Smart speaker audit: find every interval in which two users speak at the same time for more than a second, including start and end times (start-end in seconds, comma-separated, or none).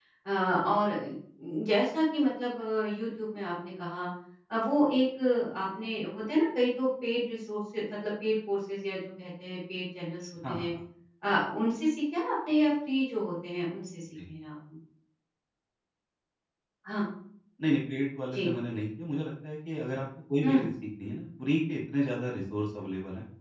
none